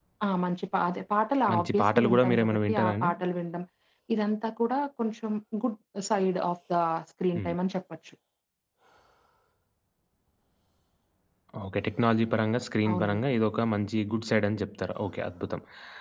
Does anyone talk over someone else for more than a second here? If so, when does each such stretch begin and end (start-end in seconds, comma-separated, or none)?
1.5-3.1